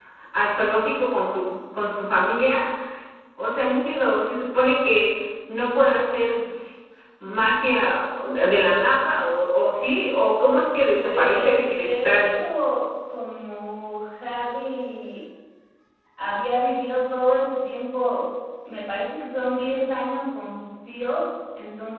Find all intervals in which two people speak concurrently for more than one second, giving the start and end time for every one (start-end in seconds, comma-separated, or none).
11.0-12.3